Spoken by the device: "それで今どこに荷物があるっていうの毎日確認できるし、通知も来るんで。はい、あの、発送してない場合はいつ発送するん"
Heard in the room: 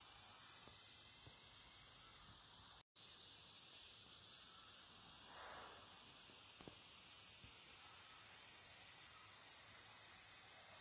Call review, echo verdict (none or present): none